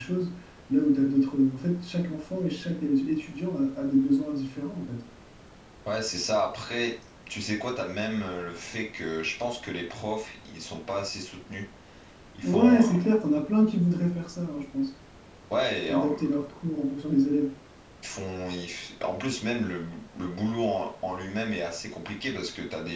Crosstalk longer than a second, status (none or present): none